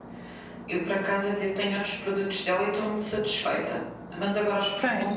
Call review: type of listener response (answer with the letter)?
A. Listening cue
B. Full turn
A